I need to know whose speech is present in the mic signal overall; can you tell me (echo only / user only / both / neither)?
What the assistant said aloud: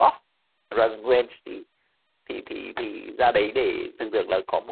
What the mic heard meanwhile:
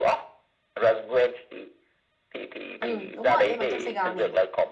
both